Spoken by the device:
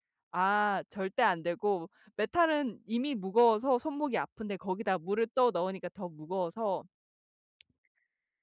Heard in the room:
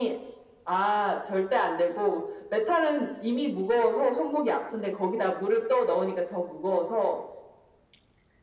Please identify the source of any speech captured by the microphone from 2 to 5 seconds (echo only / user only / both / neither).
echo only